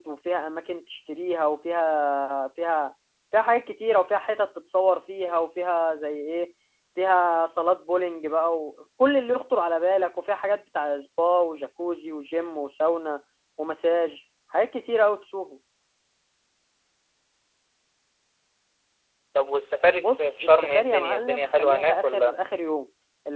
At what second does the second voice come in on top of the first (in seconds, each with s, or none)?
20.0 s